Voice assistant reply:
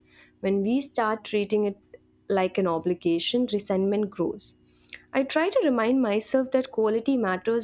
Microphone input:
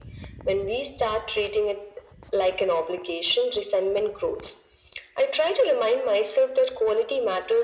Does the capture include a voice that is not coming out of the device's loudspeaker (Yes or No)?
No